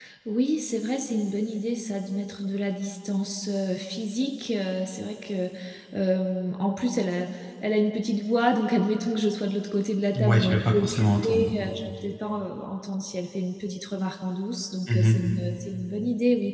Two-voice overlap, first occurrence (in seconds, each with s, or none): 10.2 s